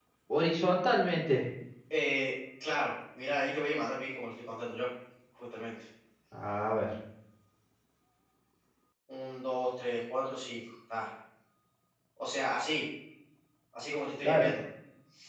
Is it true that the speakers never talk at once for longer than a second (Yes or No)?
Yes